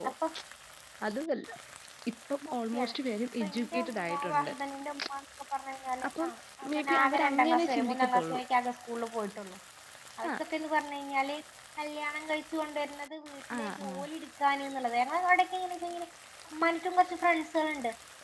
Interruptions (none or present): present